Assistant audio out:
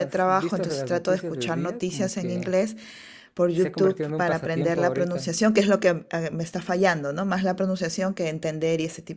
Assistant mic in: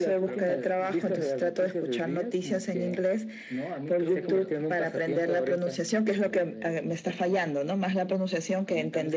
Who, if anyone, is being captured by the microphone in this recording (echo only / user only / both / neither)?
both